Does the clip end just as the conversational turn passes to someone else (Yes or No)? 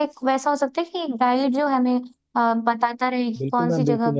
Yes